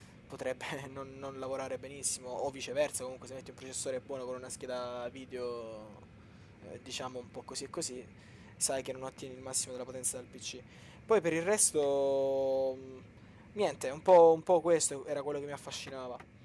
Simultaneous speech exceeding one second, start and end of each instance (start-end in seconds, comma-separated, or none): none